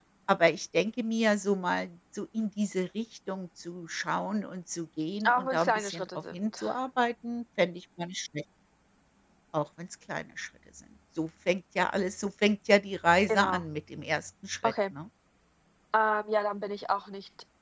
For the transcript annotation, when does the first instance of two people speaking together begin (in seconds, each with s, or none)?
5.2 s